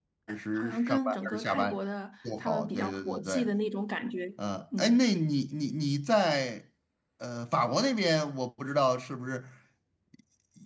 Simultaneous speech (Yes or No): Yes